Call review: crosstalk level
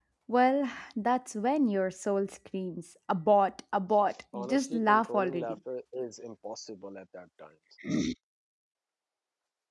present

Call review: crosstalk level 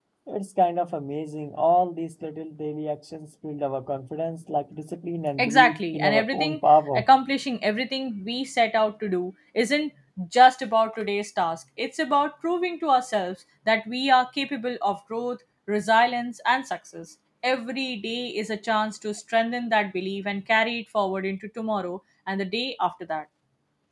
present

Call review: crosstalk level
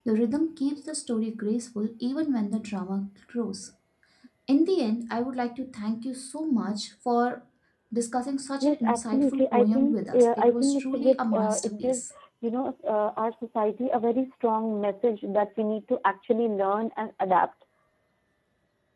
present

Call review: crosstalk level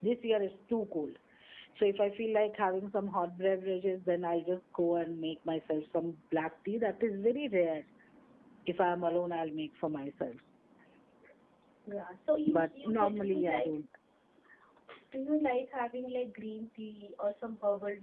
present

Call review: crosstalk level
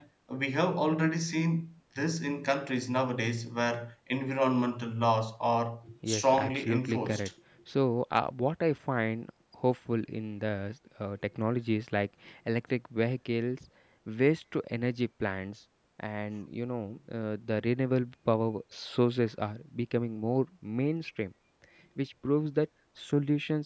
present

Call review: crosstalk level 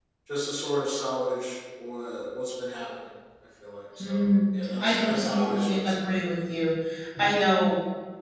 present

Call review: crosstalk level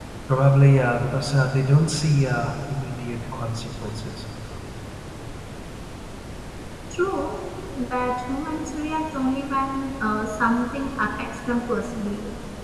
none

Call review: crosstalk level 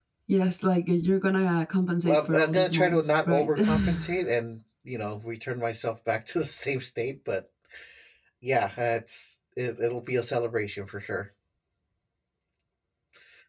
present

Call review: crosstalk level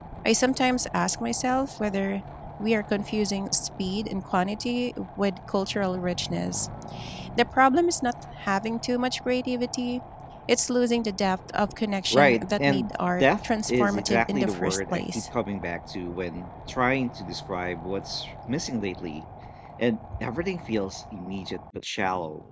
present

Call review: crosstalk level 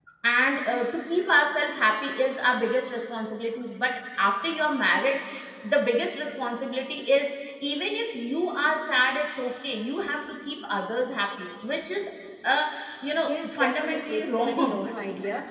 present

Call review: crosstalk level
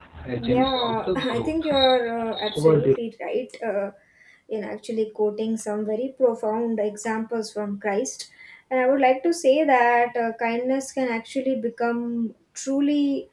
present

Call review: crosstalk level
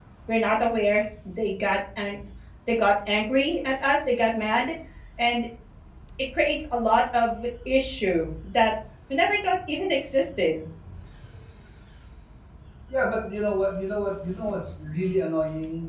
none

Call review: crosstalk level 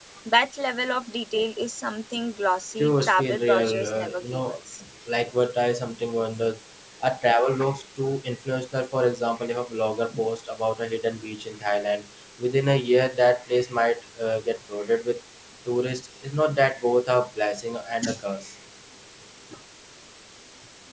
present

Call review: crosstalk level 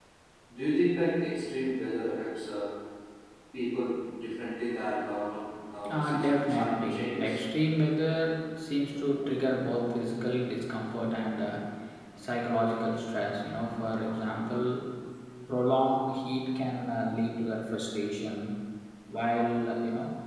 present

